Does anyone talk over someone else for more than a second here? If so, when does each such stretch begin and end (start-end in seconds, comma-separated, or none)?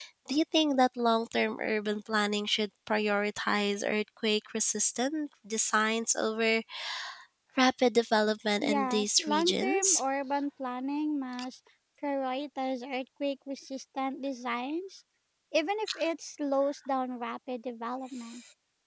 8.6-10.0